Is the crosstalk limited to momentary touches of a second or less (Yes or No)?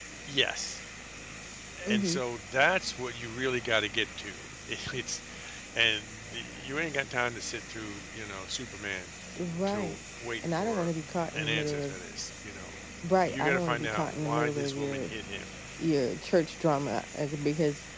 No